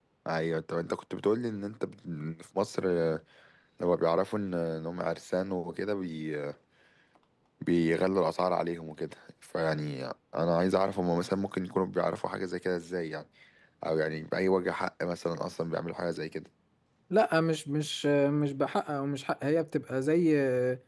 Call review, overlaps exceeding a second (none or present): none